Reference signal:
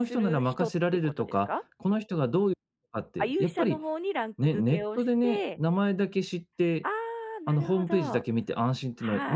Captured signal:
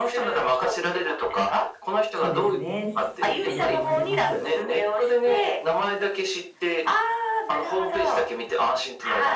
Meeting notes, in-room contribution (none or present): present